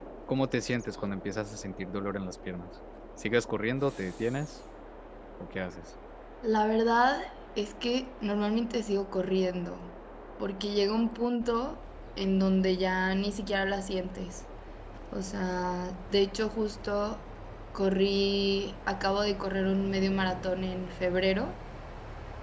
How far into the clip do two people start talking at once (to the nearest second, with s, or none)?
none